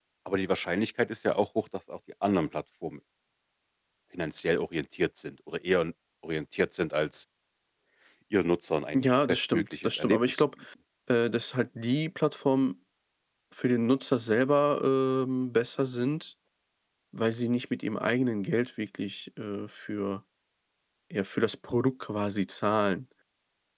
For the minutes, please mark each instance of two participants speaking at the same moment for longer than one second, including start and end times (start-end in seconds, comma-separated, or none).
8.9-10.4